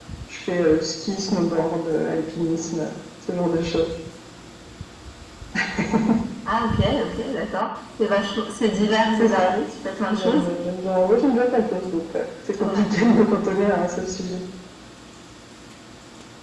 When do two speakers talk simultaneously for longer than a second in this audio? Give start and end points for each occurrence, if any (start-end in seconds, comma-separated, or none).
none